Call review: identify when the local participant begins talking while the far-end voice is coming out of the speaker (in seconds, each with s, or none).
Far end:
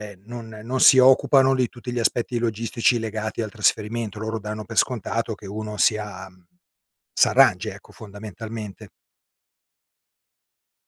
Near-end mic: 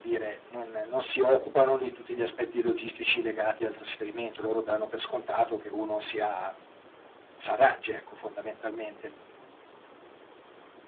none